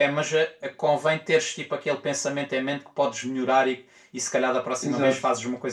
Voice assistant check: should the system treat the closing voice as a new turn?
No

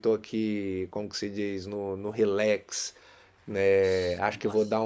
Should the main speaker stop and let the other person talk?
No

